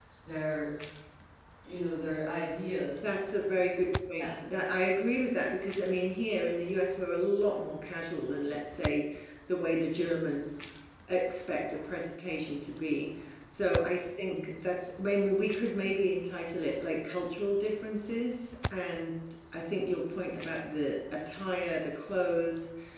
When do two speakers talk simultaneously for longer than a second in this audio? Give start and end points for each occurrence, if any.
none

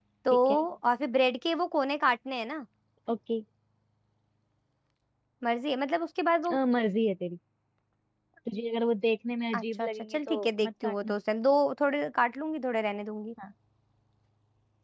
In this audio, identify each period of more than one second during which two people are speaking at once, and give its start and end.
9.5-11.1

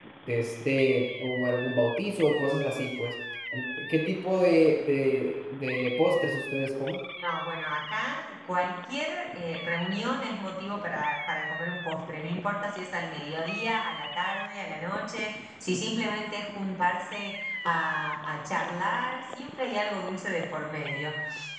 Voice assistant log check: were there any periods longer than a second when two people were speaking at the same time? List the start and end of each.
none

